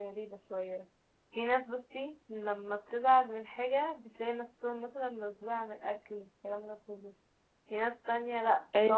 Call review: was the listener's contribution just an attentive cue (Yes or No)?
Yes